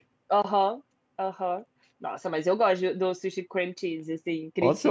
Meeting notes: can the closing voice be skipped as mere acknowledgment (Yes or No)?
No